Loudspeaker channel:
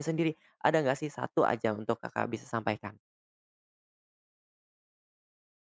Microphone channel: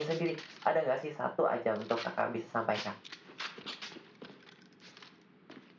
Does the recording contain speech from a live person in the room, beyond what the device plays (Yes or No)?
No